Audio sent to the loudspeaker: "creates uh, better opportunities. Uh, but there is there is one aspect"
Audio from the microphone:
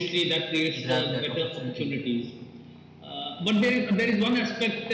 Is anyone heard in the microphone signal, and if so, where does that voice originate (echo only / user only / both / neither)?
both